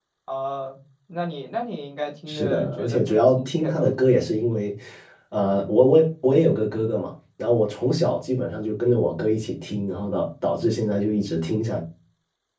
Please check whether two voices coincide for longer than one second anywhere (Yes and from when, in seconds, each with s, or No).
Yes, from 2.3 s